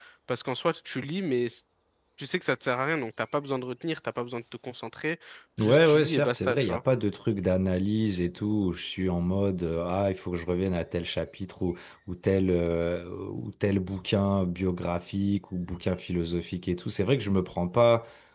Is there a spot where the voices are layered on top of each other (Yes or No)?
Yes